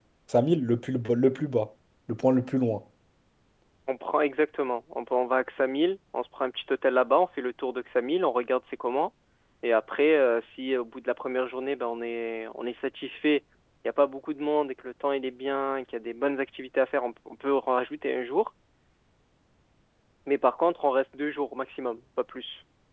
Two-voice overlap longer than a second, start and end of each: none

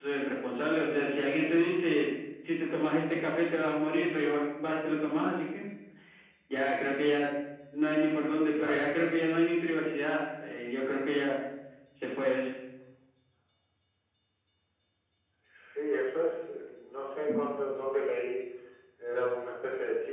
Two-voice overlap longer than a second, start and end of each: none

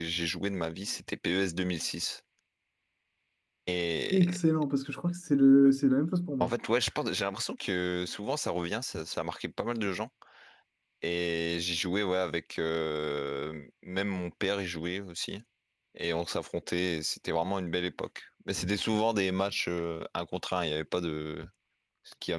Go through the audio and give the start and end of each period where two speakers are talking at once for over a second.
none

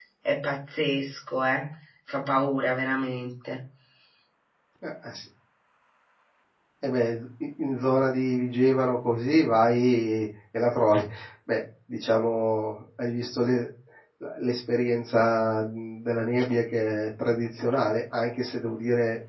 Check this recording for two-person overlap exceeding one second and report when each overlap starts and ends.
none

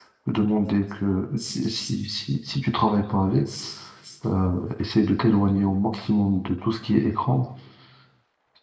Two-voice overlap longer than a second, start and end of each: none

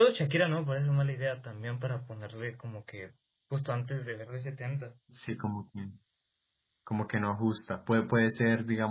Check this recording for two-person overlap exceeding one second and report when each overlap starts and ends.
none

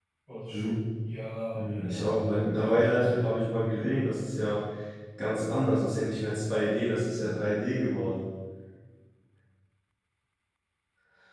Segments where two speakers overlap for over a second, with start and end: 1.5-3.9

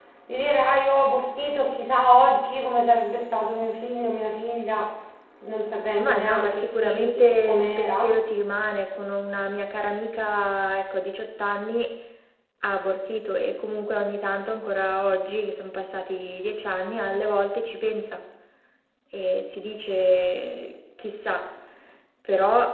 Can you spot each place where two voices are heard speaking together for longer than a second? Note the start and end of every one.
6.0-8.1

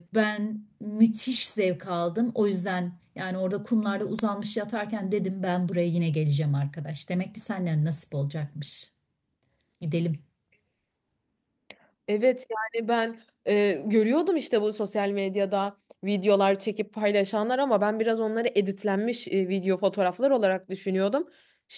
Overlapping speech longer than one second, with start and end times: none

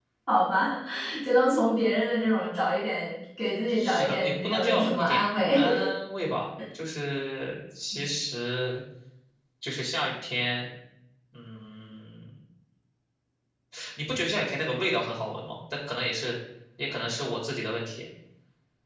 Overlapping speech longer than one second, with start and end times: 3.7-5.6

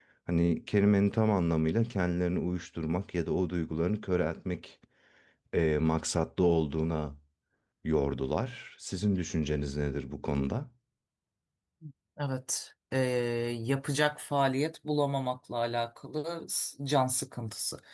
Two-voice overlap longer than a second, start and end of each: none

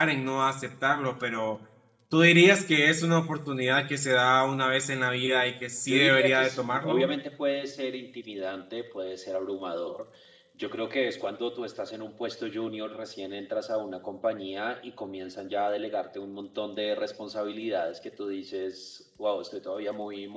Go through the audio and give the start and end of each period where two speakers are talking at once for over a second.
5.9-7.1

